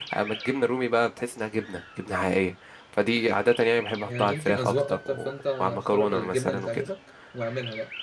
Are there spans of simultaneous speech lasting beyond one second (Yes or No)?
Yes